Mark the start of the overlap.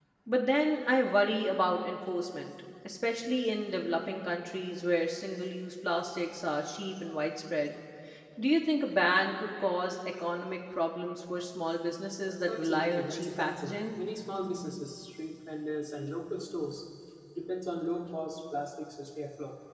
12 s

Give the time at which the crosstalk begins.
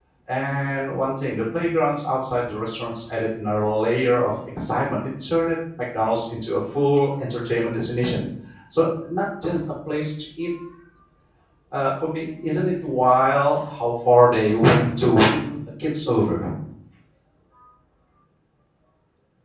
none

